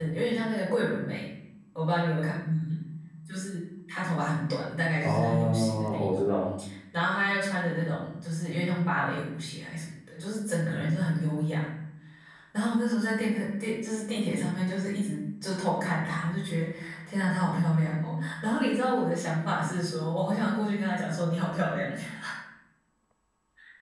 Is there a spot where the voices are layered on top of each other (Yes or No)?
Yes